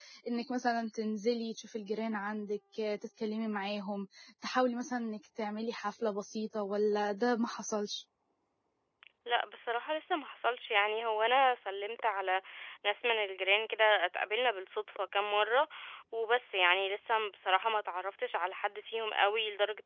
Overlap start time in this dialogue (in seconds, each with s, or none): none